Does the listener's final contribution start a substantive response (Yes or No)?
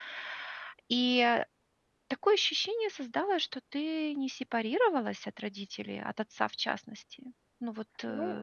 Yes